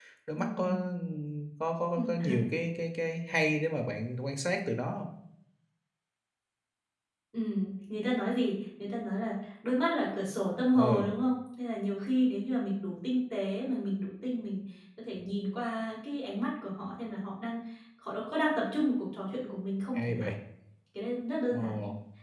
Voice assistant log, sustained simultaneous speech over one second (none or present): none